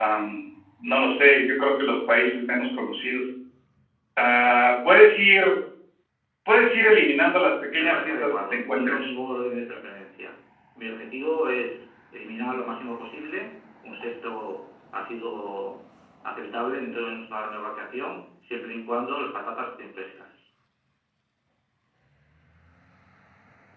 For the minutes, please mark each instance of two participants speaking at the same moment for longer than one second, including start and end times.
7.8-9.1

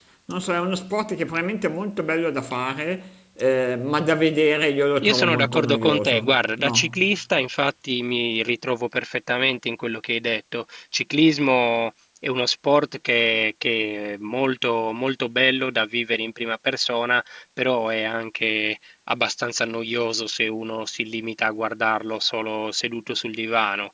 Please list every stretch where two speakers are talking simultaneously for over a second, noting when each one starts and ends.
5.0-7.0

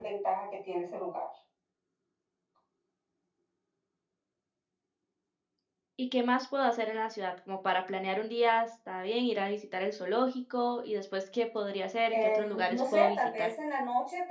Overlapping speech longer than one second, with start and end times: 12.1-13.5

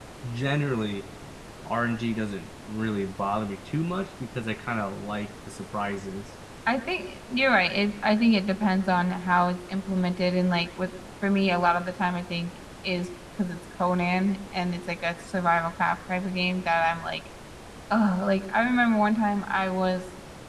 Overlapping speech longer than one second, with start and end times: none

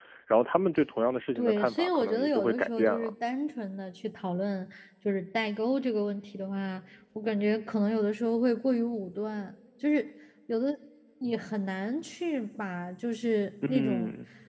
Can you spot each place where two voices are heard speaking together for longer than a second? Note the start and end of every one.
1.4-3.1

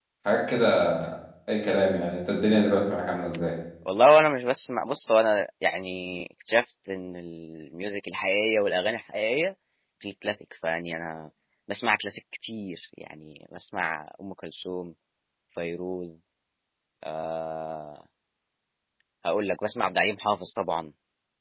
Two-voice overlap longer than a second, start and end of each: none

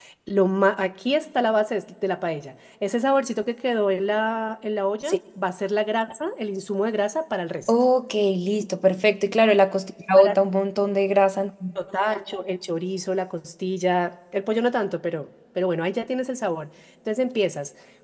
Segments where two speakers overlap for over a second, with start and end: none

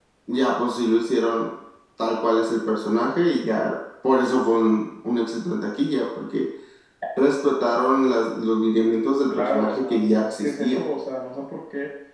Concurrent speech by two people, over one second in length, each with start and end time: 9.3-10.8

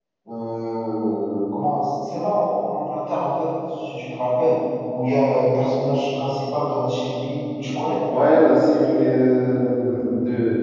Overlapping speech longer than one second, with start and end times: none

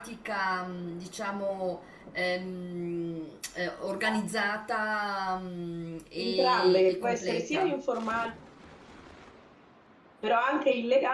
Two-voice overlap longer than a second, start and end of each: 6.2-7.7

